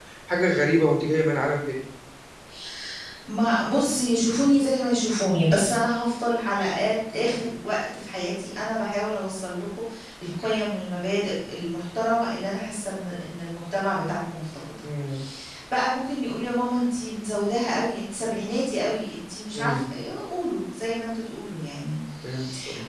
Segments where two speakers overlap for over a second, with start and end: none

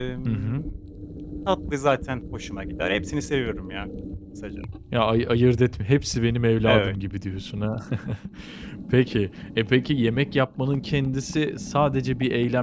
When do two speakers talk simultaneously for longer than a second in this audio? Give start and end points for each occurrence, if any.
none

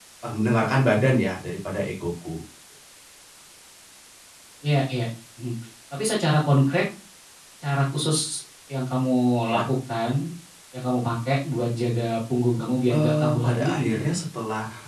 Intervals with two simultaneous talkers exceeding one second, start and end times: 12.9-14.2

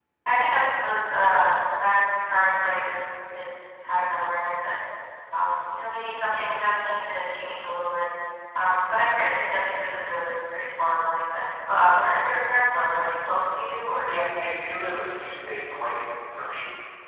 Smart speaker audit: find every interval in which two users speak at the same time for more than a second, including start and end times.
none

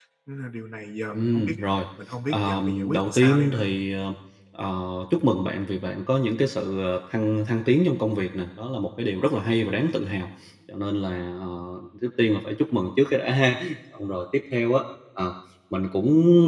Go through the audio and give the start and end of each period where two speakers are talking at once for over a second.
2.3-3.6

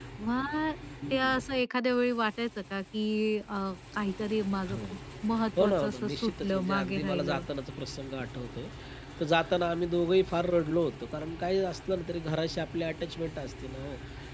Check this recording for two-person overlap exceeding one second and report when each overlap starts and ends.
5.6-7.4

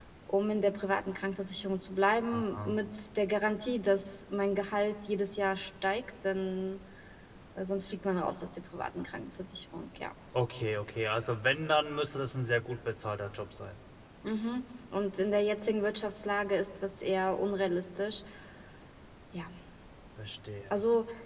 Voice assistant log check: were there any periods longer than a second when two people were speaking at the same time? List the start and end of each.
none

